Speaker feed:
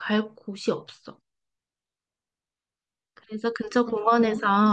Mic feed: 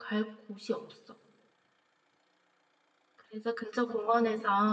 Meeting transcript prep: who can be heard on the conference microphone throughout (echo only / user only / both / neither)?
echo only